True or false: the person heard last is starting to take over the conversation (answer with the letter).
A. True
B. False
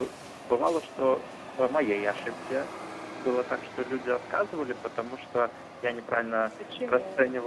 B